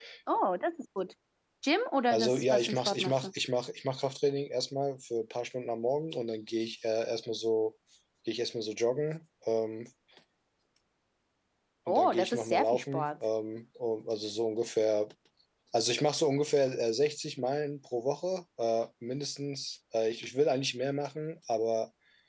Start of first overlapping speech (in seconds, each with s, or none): 2.1 s